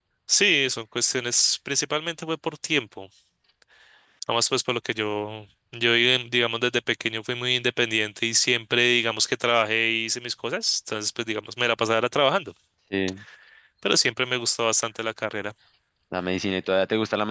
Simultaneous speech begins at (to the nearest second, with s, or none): none